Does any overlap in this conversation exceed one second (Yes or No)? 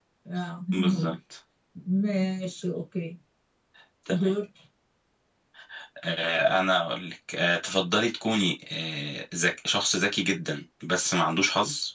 No